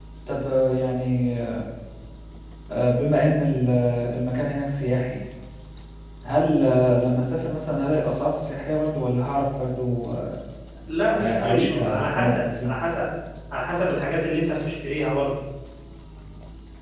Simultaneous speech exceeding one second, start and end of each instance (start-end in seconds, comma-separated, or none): 11.1-12.7